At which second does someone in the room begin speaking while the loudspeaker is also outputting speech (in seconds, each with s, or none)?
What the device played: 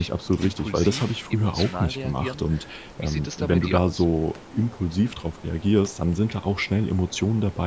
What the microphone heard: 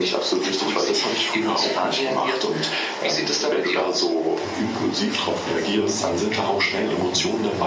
4.4 s